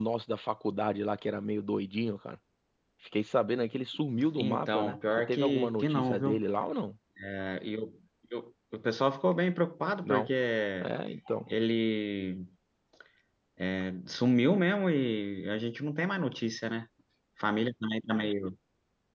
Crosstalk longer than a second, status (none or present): present